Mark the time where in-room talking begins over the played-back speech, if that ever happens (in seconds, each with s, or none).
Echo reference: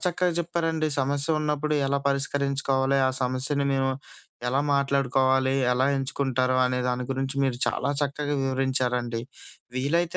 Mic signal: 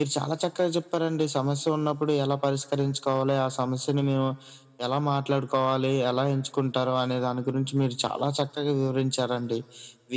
none